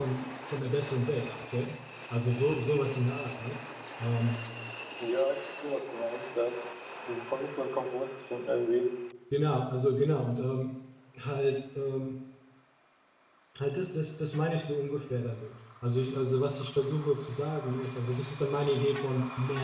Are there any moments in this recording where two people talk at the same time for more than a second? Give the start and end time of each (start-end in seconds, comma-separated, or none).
none